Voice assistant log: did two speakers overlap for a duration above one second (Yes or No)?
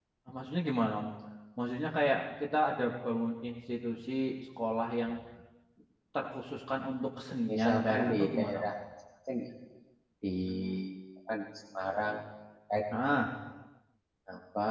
Yes